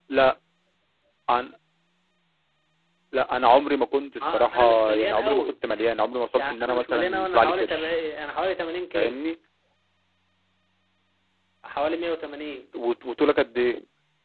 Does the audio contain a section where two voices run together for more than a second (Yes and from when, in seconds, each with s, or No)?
Yes, from 4.2 s